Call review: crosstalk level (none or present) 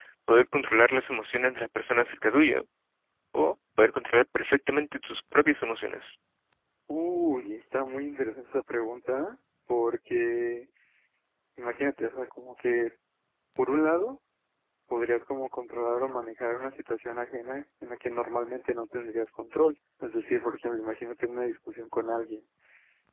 none